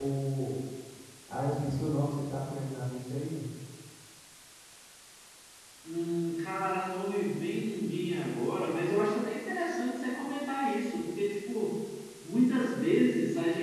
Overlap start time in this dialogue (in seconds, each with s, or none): none